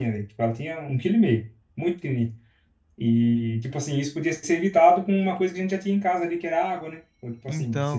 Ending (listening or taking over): listening